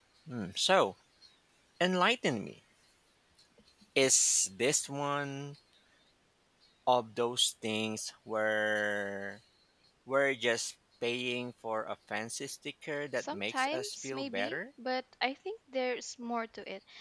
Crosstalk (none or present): present